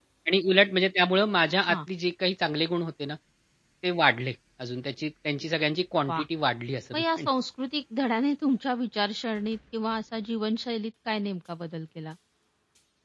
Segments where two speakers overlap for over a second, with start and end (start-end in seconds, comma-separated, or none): none